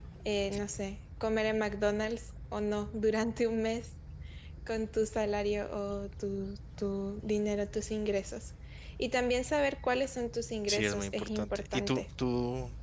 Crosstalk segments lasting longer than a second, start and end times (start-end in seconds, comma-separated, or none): 10.7-12.0